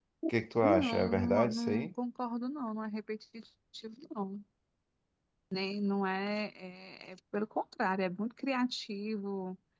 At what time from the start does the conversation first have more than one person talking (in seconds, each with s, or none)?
0.6 s